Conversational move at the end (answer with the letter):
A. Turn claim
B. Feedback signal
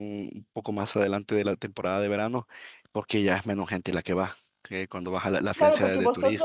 A